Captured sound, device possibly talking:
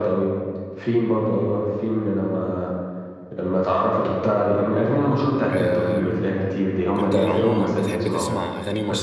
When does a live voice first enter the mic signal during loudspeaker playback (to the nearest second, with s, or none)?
6 s